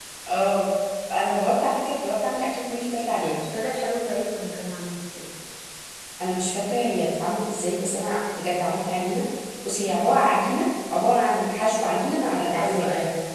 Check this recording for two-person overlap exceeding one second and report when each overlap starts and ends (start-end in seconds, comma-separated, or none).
none